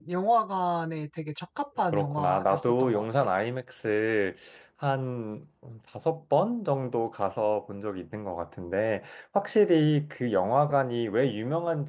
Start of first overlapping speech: 1.9 s

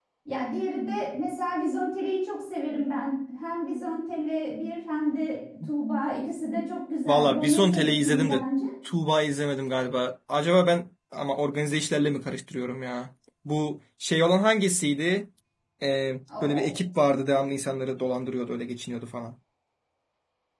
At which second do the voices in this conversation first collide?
7.1 s

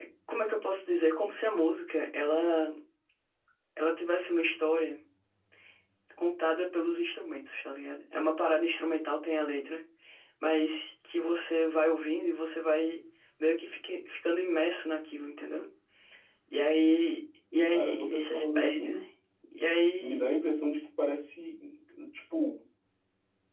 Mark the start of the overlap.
17.7 s

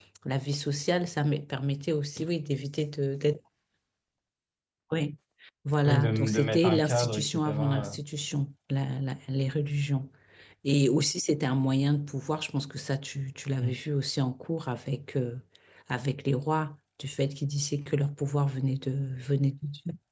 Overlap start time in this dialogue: 5.8 s

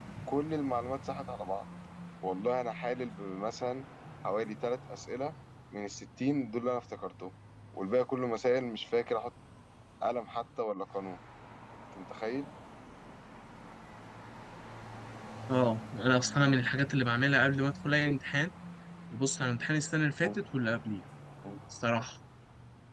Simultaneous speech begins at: none

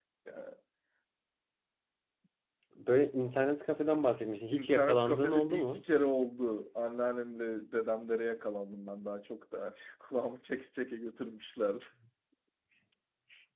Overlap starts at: 4.5 s

